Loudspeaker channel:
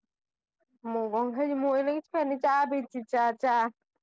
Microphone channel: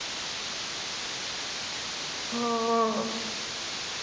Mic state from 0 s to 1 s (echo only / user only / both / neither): neither